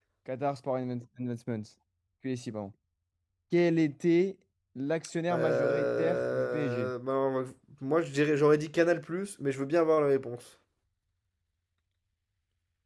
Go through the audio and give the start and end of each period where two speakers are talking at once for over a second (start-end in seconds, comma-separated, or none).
5.3-6.9